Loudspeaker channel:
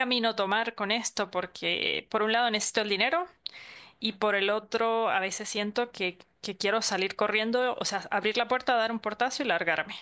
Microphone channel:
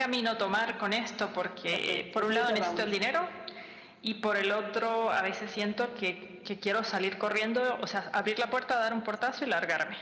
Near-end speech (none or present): present